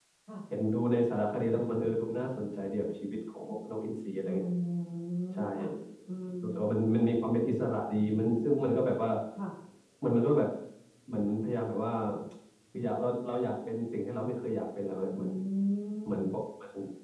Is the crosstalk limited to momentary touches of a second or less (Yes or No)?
Yes